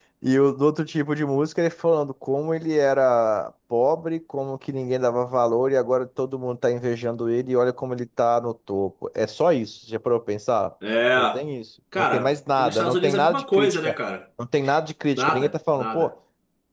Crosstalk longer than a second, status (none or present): present